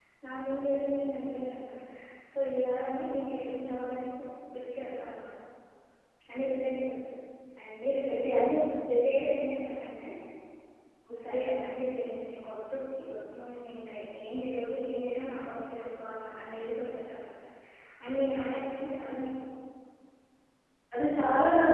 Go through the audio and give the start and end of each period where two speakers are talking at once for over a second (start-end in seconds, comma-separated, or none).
none